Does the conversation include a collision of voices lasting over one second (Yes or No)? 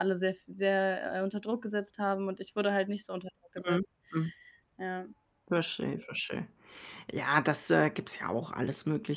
No